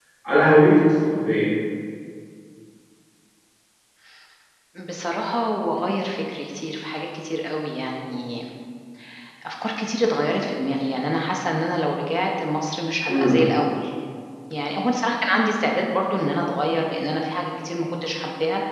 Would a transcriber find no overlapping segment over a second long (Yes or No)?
Yes